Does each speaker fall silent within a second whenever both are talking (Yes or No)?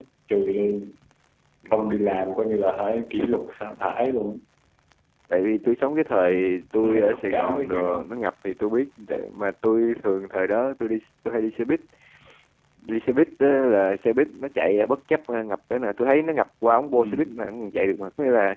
No